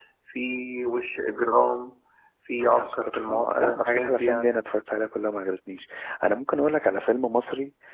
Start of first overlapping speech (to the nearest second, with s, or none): 3 s